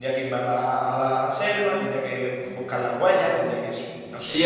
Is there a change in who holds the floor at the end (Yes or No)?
Yes